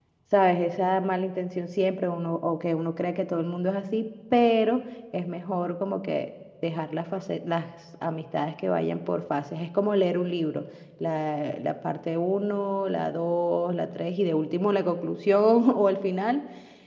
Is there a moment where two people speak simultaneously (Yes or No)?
No